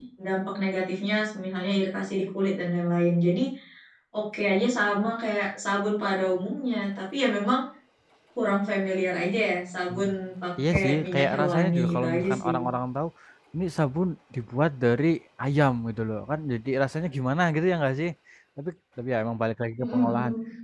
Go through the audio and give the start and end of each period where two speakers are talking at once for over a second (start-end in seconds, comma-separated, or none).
10.7-12.6